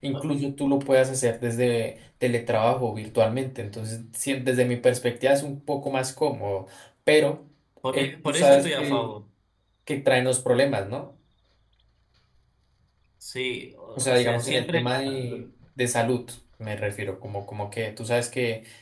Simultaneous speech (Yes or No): Yes